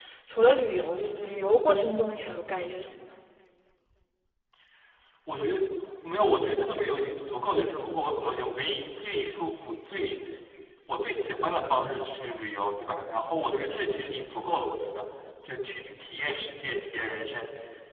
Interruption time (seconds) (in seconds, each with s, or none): none